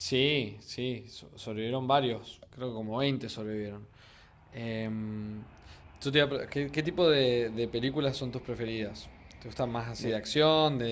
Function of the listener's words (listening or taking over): listening